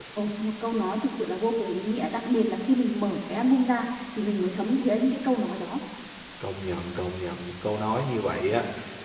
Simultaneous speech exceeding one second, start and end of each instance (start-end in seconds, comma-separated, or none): none